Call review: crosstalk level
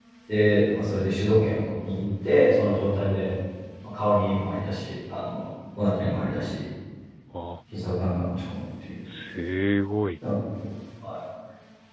none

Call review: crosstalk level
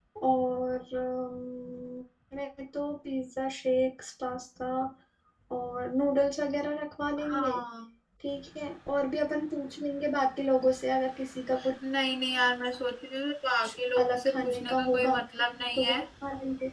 present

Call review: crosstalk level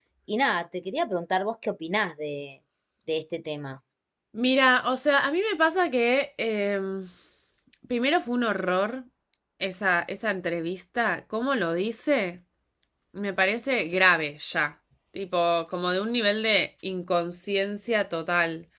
none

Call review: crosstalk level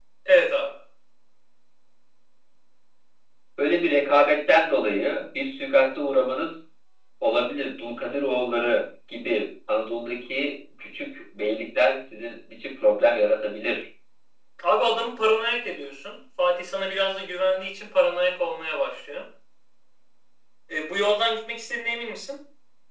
none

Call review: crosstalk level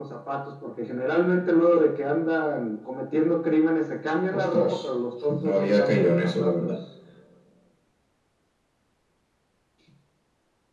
present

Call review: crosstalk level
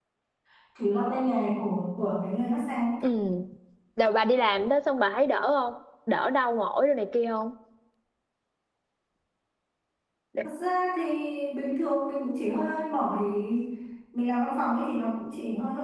none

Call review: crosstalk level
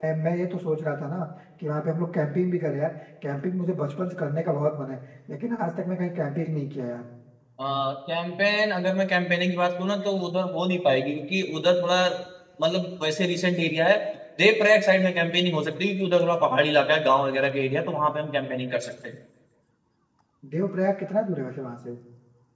none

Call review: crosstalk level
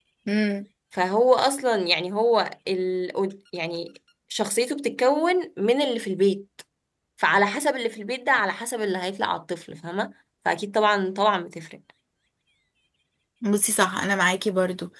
none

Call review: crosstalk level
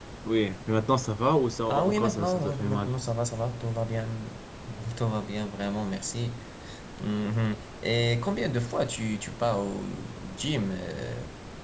present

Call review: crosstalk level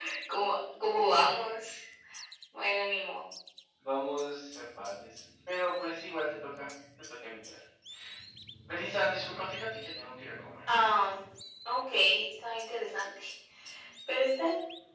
none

